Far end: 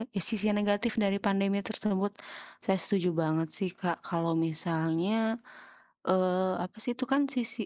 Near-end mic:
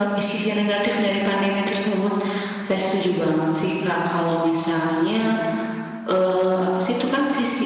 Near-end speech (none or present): none